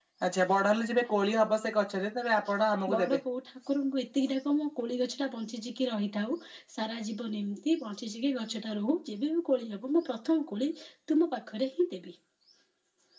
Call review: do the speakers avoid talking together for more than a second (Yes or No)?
Yes